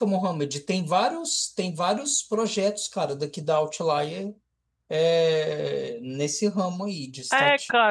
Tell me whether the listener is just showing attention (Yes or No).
No